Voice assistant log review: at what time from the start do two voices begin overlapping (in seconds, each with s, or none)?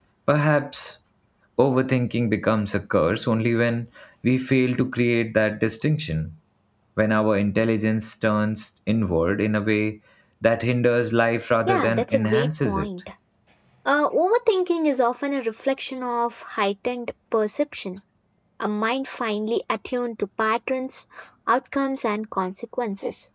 11.7 s